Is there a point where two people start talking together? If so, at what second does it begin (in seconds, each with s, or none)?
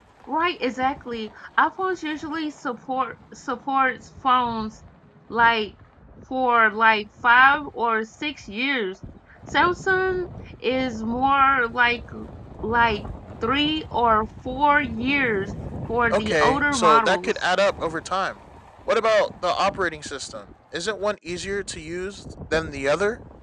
16.1 s